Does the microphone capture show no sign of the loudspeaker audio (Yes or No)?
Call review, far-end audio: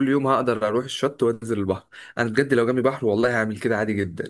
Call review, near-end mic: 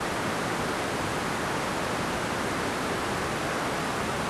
Yes